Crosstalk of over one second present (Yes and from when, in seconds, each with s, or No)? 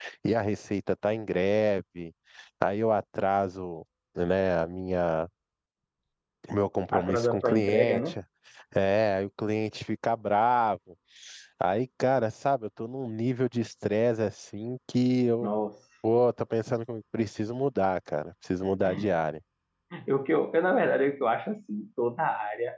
Yes, from 6.9 s